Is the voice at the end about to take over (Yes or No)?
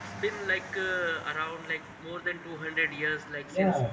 Yes